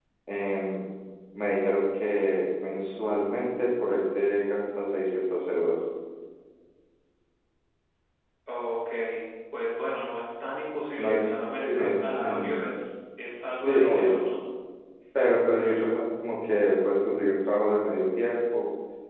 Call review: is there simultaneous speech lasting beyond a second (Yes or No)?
Yes